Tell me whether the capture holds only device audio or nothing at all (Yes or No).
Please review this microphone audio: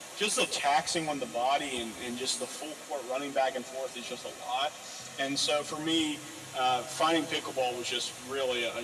Yes